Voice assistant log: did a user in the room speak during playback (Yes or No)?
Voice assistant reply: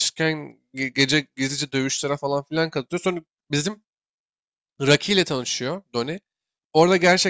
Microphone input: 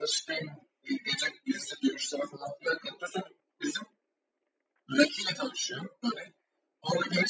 No